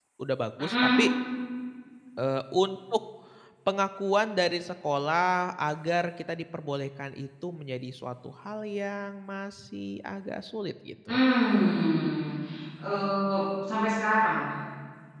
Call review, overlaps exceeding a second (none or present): none